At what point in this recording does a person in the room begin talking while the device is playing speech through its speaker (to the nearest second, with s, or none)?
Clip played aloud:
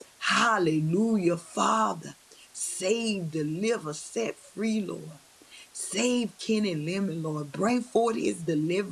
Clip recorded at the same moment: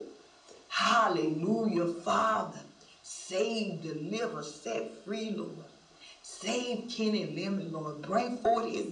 none